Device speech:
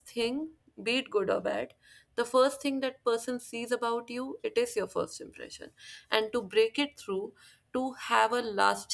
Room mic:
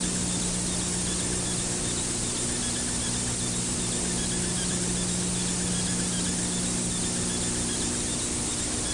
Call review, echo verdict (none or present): none